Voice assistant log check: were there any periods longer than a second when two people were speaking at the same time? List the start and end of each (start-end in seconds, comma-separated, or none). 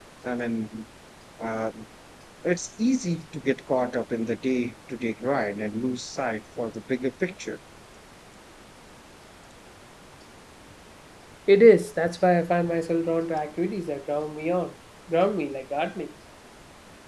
none